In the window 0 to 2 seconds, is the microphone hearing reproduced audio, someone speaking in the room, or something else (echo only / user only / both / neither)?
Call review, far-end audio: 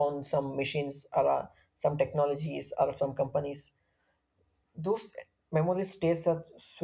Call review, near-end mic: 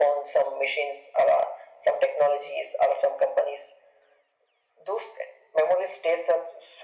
echo only